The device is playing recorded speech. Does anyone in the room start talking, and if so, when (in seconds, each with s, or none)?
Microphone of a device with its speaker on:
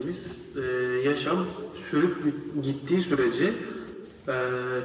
none